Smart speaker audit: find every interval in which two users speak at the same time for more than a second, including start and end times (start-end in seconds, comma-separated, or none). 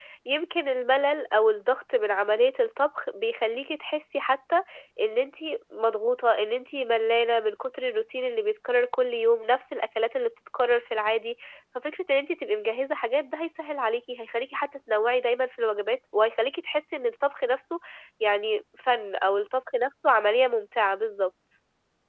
none